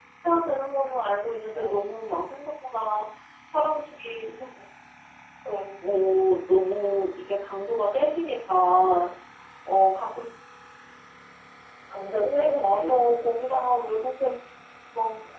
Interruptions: present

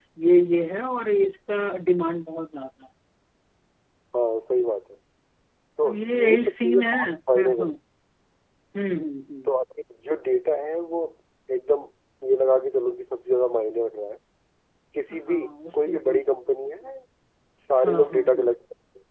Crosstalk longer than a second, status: present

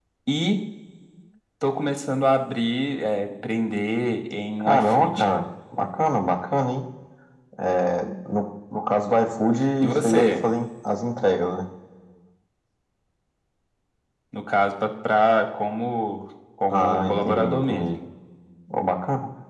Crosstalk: present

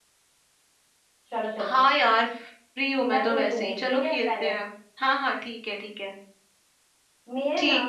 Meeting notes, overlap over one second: present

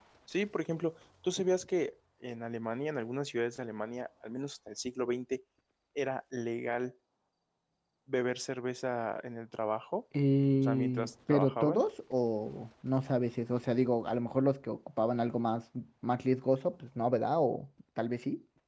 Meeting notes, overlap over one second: present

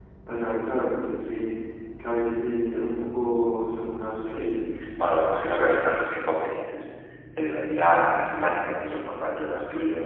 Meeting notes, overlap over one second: none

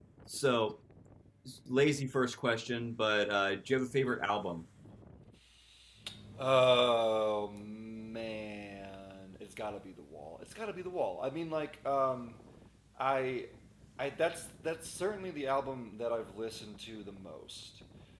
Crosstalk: none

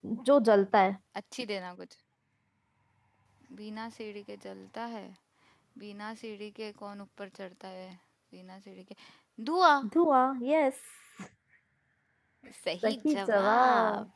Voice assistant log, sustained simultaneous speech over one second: present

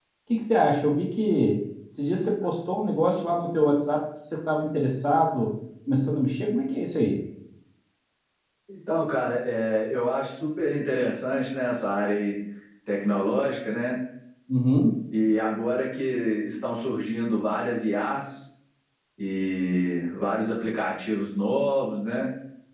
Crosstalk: none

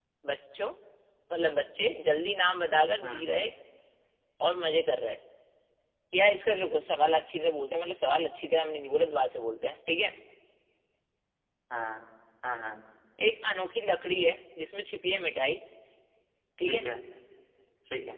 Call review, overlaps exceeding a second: none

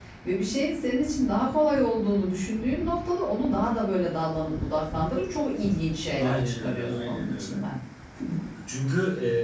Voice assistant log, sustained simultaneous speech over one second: present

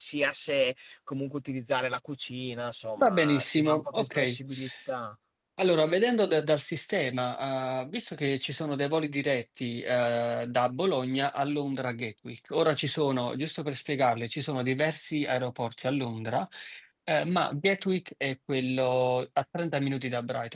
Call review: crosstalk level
present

